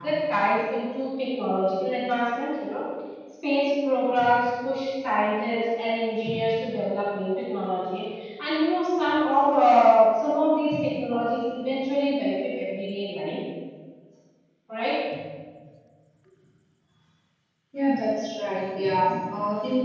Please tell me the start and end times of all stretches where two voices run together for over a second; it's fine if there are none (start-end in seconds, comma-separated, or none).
none